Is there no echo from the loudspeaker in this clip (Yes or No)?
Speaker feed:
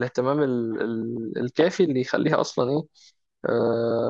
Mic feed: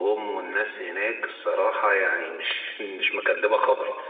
Yes